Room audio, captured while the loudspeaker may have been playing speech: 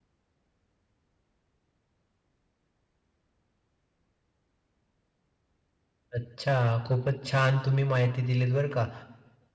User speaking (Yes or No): Yes